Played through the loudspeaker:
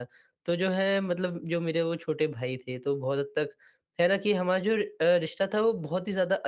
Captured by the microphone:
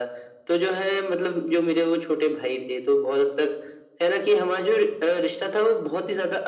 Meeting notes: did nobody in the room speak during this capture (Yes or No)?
Yes